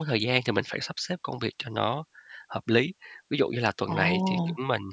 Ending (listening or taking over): listening